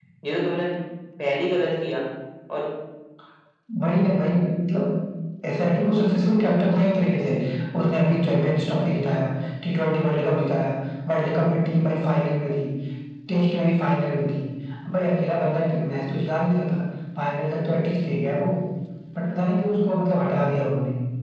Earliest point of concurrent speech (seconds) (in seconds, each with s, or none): none